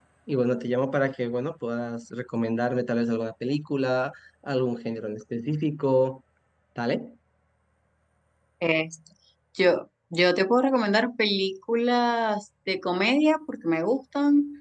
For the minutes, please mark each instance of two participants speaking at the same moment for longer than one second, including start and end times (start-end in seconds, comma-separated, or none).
none